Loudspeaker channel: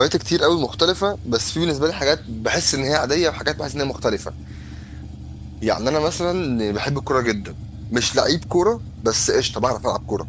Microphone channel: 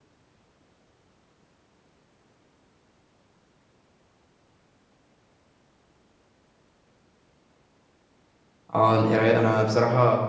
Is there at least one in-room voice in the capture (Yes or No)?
Yes